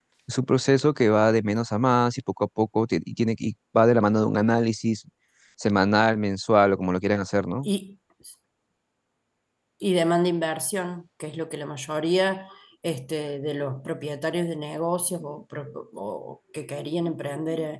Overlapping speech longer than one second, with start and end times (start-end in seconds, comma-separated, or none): none